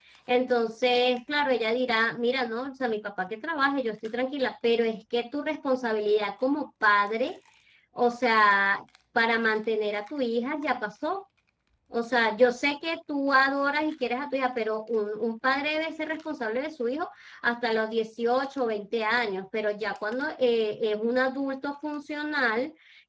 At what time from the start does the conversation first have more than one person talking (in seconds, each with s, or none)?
none